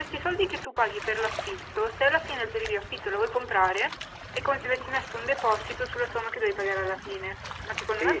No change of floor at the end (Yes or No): No